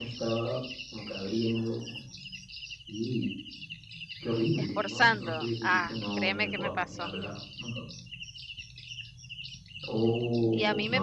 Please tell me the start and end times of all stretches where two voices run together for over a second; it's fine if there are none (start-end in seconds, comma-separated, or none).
4.6-7.1